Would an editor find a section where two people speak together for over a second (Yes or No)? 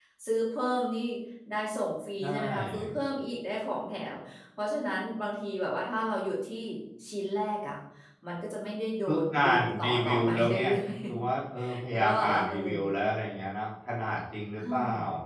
Yes